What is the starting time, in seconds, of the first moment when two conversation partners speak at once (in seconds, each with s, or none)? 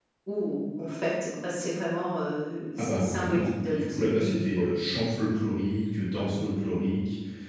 2.8 s